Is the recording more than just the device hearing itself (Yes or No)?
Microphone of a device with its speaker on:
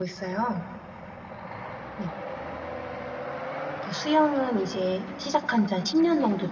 Yes